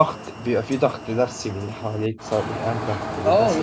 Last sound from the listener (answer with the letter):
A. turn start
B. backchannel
A